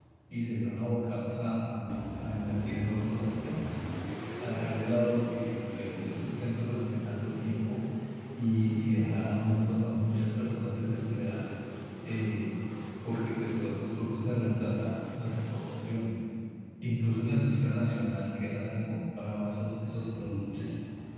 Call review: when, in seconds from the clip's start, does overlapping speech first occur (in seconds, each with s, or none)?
none